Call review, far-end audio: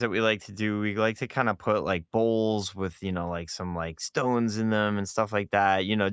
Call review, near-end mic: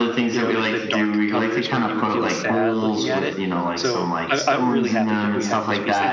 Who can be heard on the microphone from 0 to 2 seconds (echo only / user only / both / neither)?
both